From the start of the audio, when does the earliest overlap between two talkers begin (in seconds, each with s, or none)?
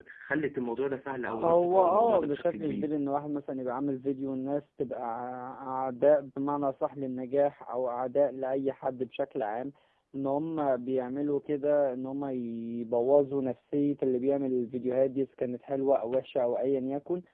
1.3 s